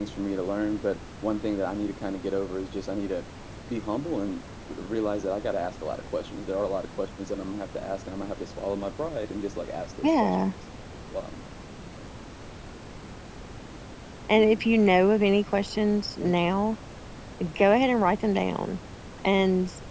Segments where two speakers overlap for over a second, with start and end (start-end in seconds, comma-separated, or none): none